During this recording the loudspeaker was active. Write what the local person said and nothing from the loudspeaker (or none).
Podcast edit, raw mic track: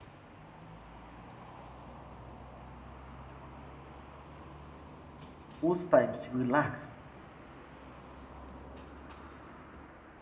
Most times, relax